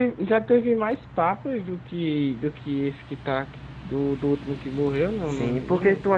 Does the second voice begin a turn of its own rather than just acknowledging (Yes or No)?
Yes